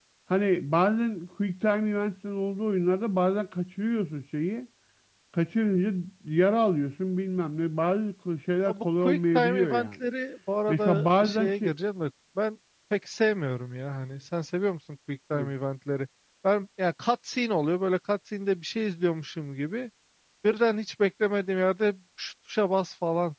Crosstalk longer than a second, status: present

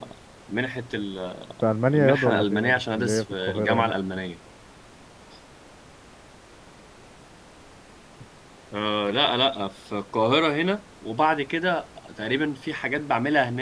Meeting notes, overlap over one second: present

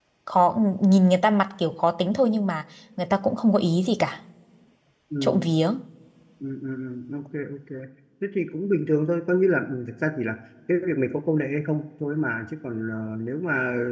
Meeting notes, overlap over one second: none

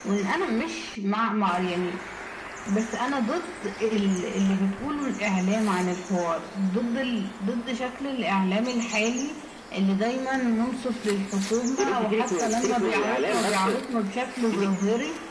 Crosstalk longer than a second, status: present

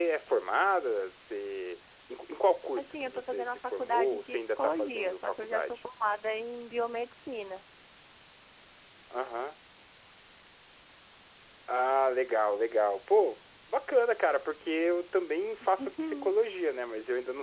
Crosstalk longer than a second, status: present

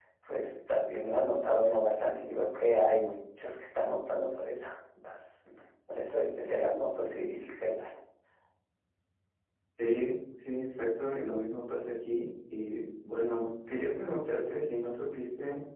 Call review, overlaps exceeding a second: none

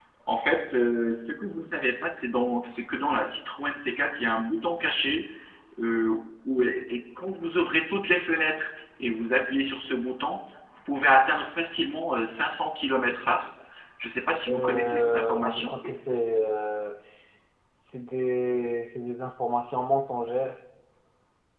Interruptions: present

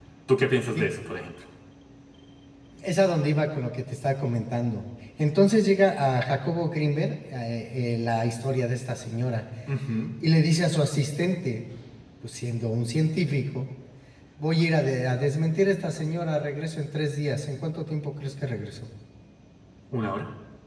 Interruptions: none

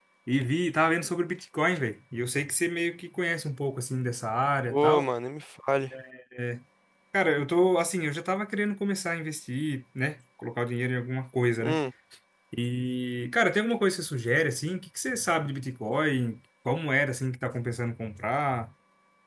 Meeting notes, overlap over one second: none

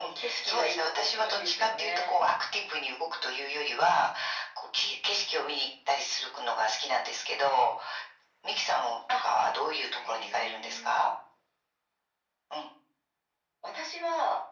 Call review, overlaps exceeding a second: present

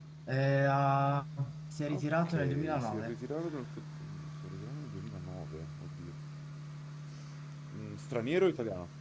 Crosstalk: present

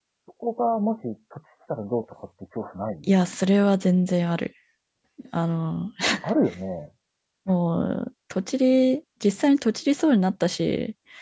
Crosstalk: none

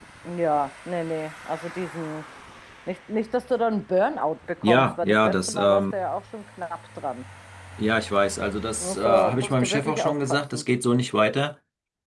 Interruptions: present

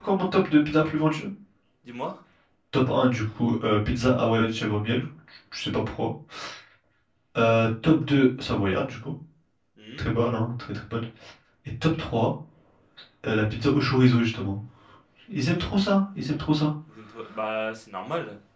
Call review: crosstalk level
none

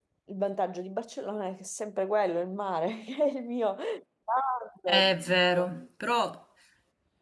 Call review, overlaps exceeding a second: none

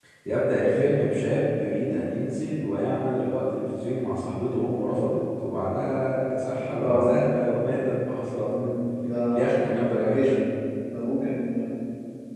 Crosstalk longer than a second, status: none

